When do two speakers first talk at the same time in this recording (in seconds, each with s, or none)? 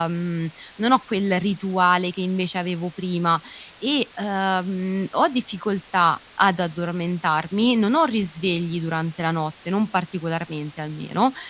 none